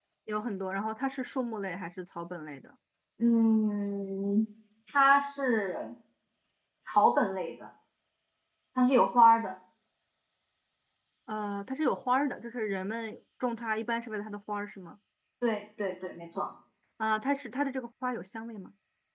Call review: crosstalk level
none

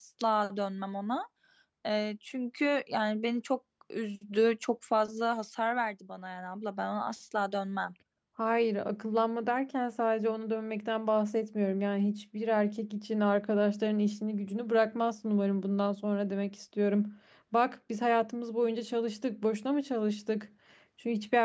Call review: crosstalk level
none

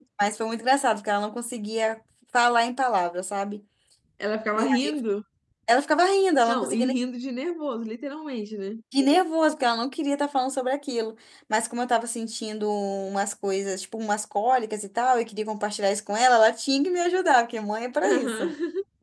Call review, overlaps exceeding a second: none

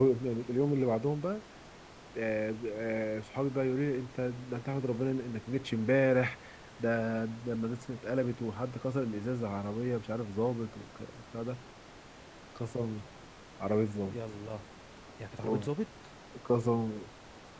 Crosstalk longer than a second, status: none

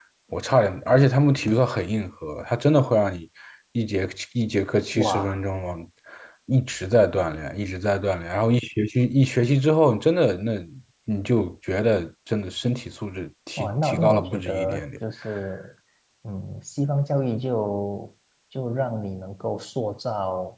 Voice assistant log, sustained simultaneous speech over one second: present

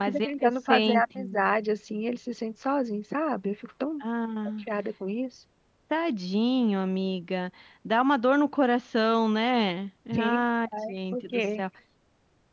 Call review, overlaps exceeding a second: present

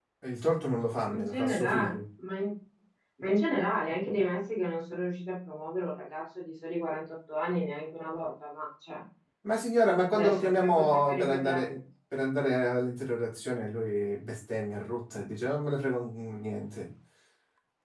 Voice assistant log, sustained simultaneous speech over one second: present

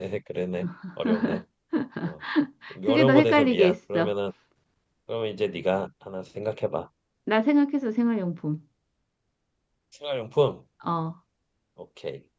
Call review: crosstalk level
present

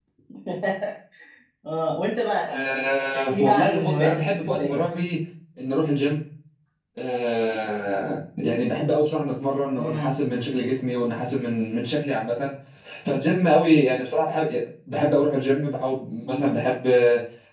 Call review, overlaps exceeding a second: present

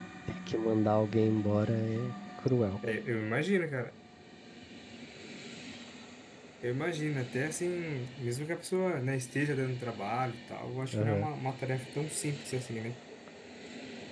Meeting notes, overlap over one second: none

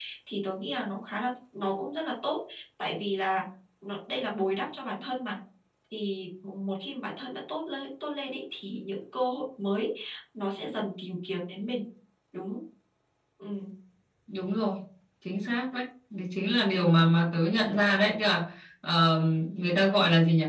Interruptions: none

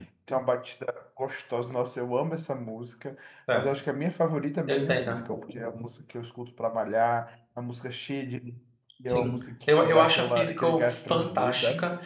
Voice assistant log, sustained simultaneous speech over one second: present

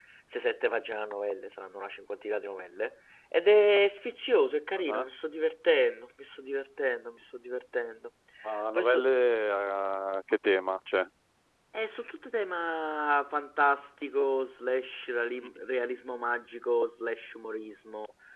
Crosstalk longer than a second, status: none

